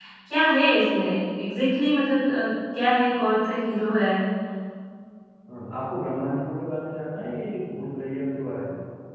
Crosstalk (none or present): none